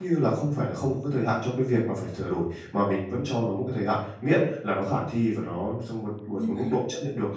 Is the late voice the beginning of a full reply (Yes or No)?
No